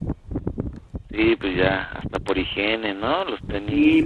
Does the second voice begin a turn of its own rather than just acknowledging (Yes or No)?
Yes